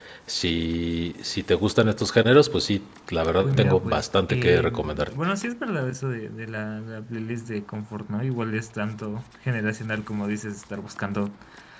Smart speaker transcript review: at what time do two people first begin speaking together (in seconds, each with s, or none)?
3.4 s